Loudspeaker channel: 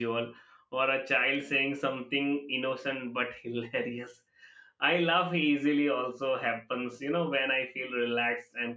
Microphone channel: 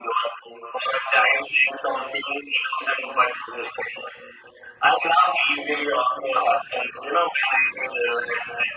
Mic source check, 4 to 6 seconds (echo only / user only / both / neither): echo only